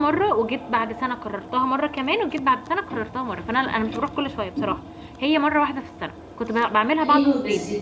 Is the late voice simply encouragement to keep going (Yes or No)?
No